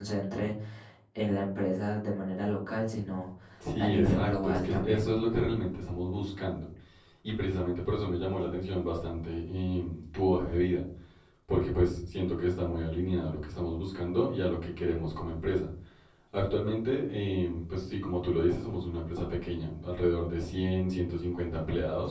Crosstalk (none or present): present